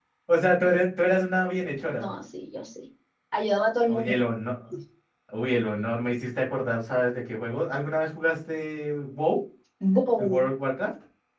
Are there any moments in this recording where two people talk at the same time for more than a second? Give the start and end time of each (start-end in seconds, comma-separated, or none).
none